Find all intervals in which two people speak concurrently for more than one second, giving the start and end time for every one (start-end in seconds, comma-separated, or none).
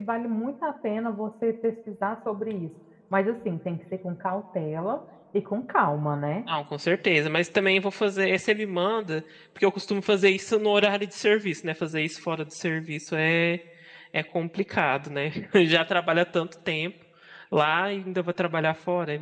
none